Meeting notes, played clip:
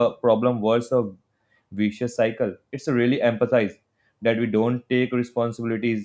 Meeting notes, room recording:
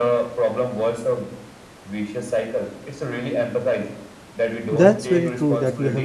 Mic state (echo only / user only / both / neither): both